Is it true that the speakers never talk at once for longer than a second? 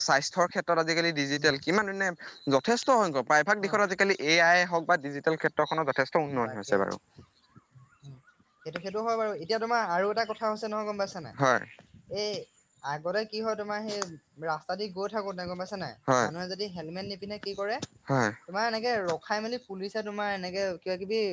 Yes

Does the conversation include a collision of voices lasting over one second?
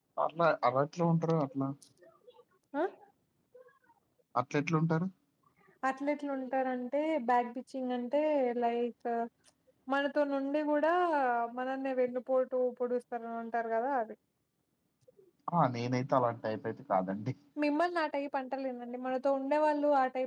No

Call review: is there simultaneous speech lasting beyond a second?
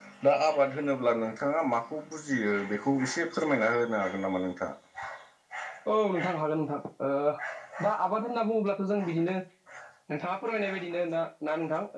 No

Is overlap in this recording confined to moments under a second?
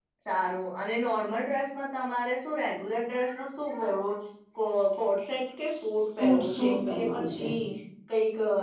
No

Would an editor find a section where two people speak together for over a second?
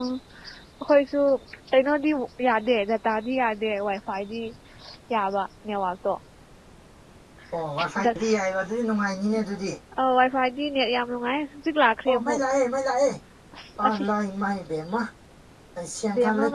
No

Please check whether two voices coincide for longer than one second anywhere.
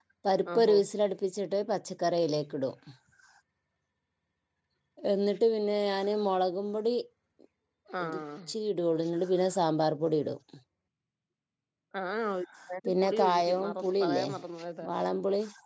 Yes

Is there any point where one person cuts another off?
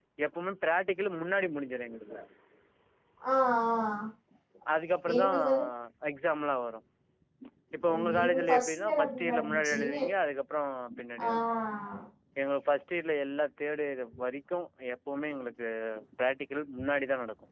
Yes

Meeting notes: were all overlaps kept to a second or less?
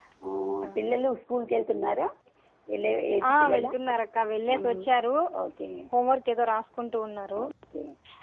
Yes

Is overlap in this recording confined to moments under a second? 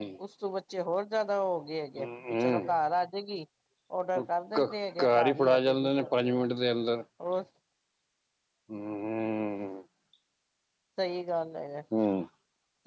No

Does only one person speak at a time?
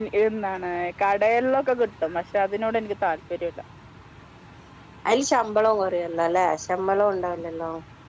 Yes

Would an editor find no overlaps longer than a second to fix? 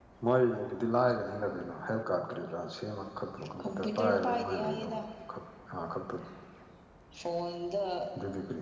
No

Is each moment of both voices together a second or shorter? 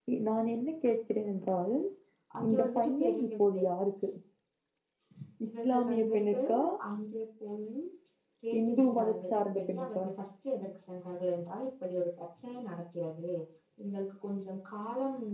No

